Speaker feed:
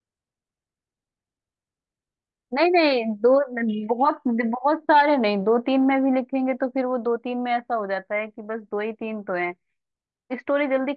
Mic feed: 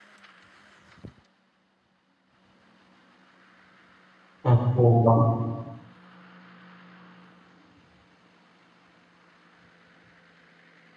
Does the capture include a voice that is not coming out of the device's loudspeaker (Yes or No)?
Yes